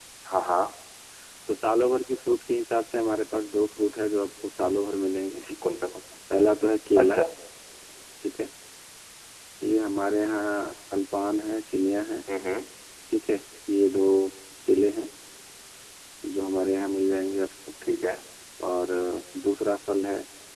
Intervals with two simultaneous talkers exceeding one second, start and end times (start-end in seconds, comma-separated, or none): none